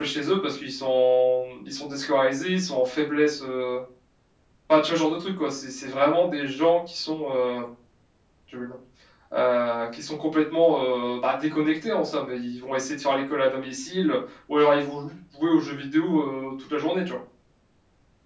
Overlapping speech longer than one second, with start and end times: none

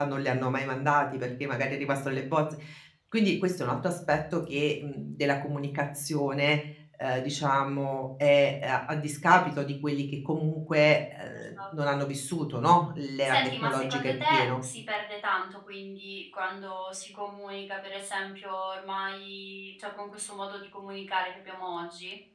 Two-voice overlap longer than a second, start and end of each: 13.2-14.6

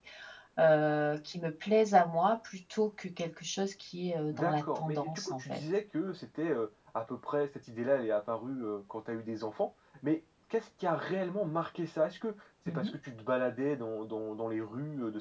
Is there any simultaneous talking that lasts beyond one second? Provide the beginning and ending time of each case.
4.3-5.6

